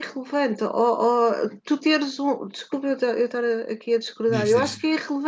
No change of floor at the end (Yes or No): Yes